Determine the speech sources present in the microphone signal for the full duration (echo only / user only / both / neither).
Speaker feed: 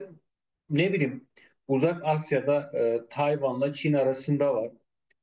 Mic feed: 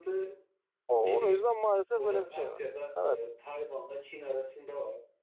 both